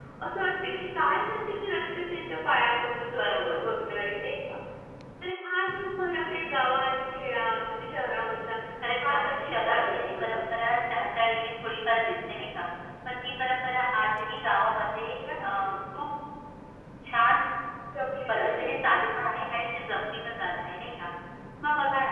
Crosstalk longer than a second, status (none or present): present